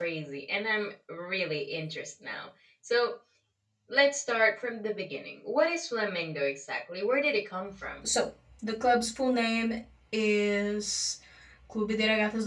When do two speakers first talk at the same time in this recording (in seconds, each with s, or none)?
none